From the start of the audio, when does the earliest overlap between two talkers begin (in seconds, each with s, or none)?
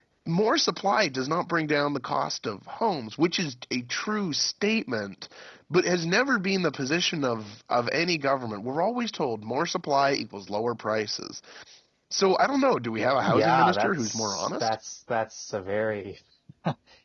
13.3 s